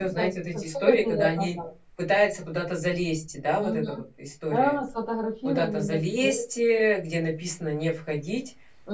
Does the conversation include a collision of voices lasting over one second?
Yes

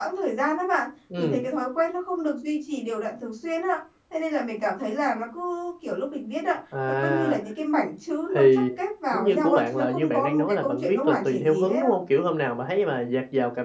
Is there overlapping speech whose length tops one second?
Yes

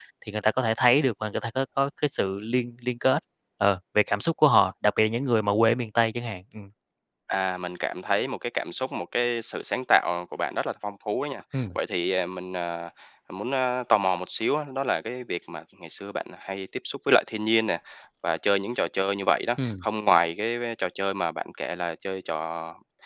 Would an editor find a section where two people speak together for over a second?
No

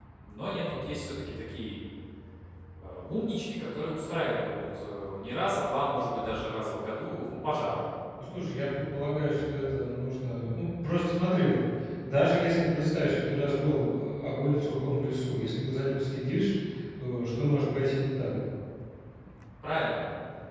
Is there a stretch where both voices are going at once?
No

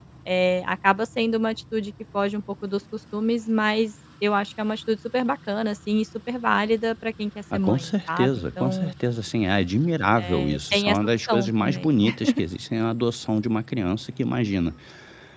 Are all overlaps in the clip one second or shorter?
No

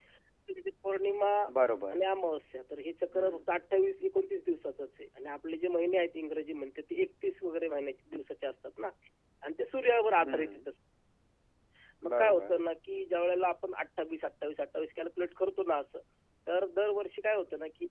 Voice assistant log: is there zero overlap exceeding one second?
Yes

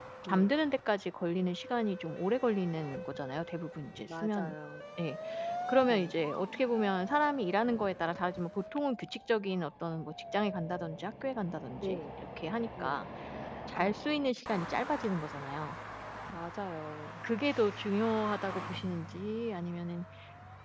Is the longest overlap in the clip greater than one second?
No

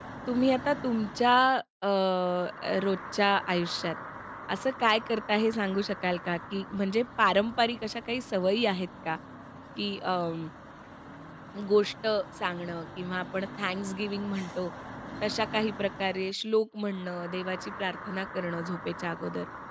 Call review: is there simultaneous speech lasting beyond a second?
No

